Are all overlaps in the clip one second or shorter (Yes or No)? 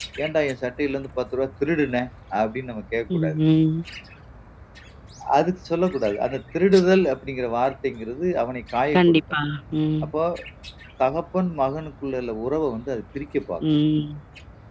Yes